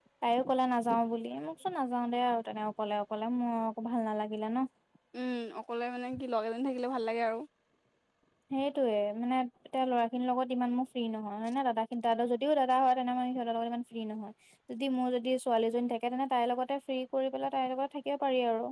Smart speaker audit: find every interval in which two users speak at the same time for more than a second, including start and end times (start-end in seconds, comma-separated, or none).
none